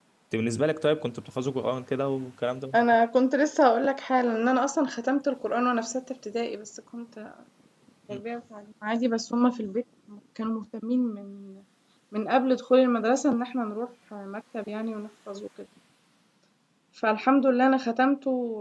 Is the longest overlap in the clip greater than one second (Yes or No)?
No